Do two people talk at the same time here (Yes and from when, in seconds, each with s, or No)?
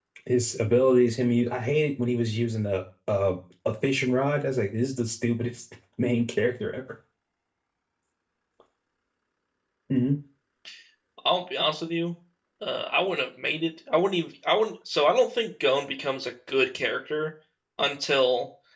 No